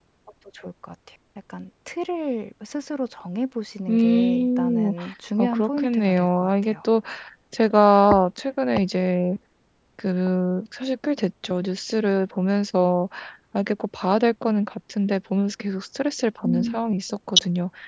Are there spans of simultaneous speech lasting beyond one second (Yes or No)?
Yes